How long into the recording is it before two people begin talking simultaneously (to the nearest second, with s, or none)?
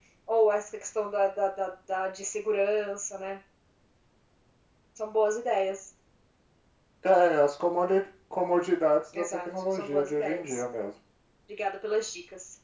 9 s